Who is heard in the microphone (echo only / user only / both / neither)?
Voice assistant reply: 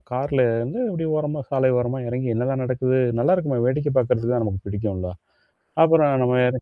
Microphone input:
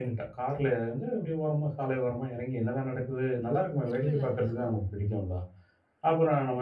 both